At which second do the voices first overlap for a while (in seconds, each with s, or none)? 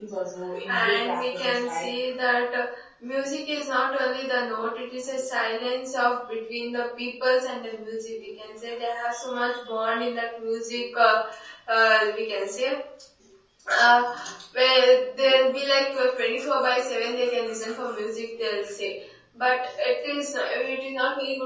0.7 s